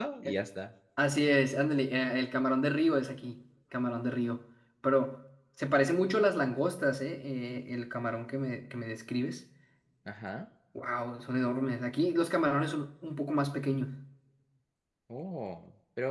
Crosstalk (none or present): none